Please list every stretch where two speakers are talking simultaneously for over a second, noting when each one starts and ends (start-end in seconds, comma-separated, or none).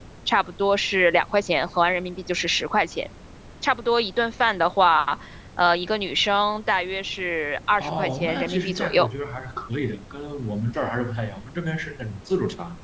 7.8-9.1